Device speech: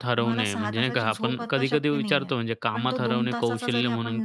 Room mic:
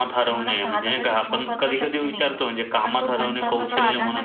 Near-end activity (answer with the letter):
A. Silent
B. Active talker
B